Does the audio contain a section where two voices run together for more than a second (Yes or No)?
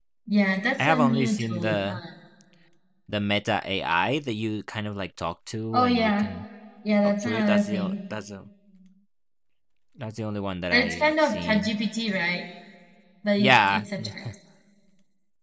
Yes